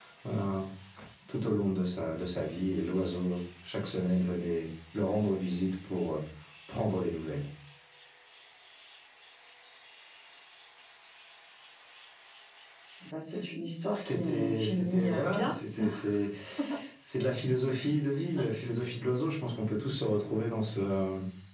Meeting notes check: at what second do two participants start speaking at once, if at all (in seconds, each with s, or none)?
13.9 s